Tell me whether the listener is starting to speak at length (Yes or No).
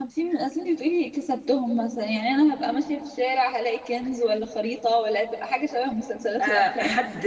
Yes